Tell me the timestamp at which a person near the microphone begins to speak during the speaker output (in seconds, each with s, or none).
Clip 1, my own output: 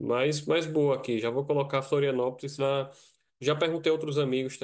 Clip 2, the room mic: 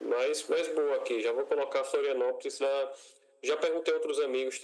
none